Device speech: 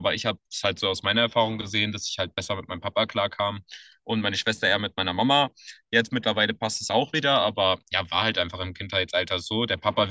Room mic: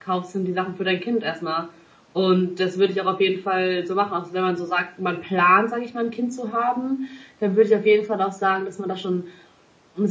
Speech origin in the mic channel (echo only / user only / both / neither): user only